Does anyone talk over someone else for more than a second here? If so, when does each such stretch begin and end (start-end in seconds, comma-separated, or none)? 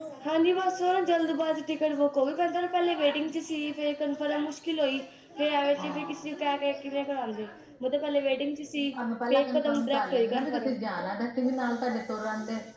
9.3-10.8